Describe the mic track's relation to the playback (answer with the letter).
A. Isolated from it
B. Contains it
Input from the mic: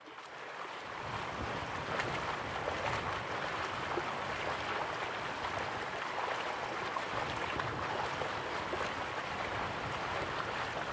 A